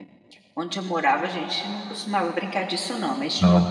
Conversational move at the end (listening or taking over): listening